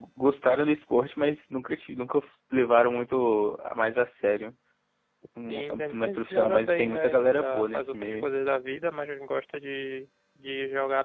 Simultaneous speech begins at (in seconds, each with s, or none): 5.5 s